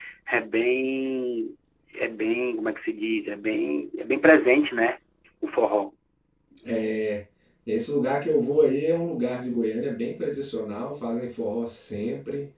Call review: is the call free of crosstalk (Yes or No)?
Yes